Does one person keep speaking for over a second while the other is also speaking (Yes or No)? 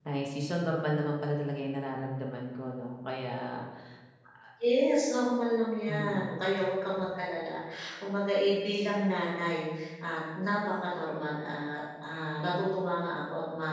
No